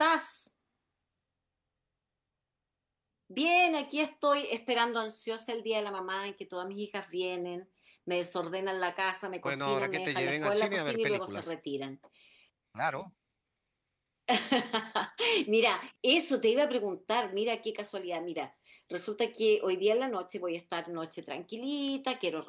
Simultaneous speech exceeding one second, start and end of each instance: 9.4-11.5

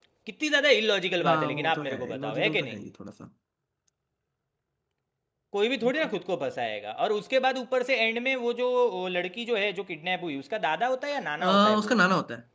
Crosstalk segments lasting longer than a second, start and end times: 1.2-2.8

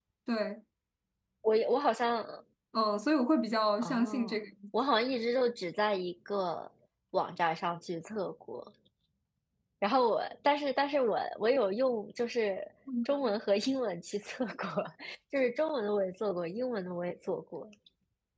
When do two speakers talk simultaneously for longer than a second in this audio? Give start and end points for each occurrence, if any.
none

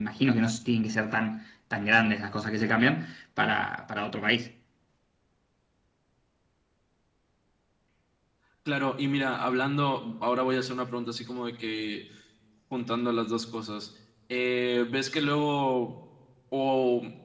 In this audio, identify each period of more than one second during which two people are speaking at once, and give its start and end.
none

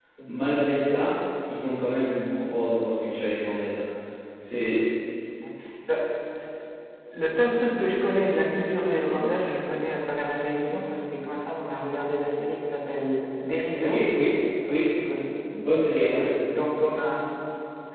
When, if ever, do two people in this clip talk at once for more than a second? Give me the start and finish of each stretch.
none

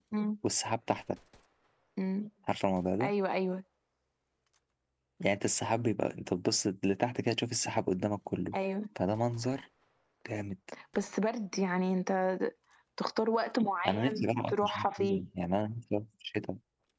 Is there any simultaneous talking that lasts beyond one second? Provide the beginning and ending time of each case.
13.9-15.2

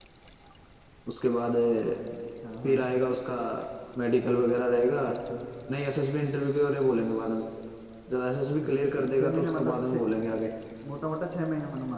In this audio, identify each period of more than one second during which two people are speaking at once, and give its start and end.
8.6-10.0

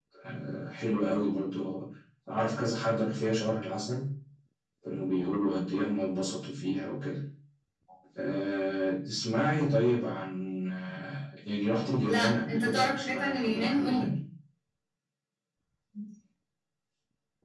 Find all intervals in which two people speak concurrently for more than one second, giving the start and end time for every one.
12.0-14.1

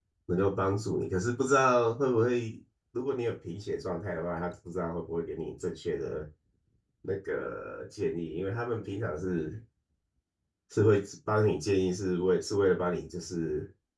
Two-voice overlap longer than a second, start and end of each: none

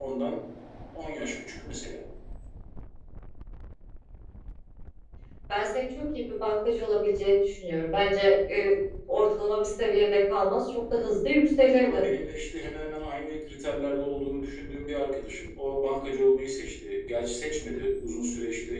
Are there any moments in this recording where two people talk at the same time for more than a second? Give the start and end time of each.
none

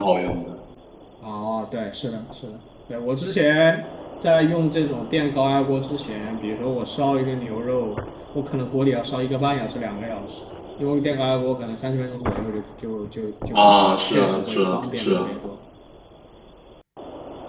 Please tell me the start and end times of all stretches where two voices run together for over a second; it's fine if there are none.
13.5-15.3

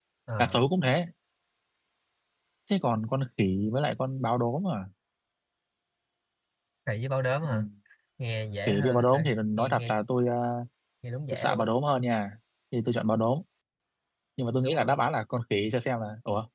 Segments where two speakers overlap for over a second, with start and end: 8.7-9.9

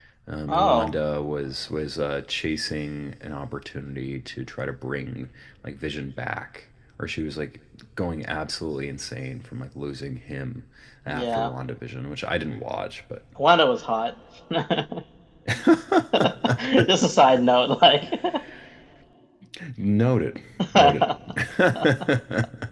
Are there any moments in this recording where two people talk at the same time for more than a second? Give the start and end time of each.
none

